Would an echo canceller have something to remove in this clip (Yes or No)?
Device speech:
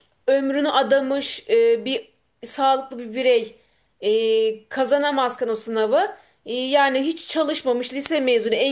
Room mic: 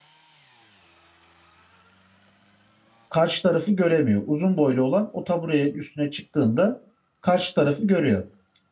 No